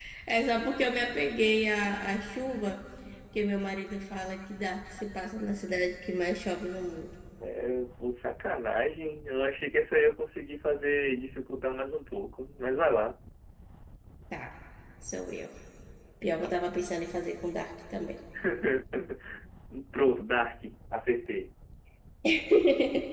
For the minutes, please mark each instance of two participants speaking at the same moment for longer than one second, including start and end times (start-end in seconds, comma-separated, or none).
none